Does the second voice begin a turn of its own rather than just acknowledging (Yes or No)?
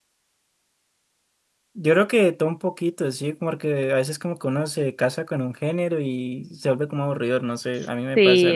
Yes